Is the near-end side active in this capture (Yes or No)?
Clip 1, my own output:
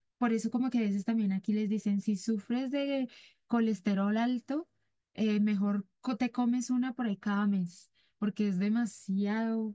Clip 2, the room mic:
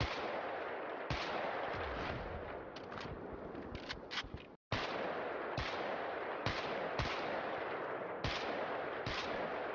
No